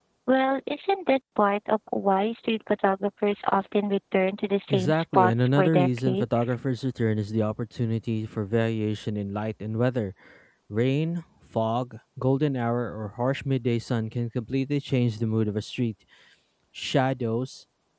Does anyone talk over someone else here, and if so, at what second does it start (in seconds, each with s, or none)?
4.7 s